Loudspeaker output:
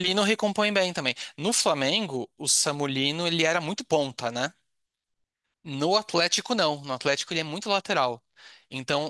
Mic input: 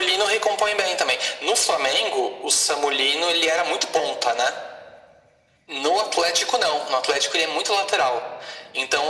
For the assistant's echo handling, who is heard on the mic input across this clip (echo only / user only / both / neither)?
echo only